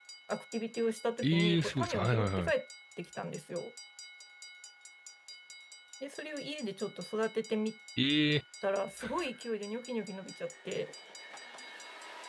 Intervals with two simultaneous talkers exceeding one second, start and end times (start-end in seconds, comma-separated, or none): 1.2-2.5